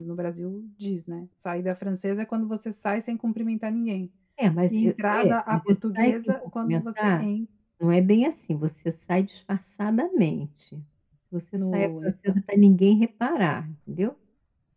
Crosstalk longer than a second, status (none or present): present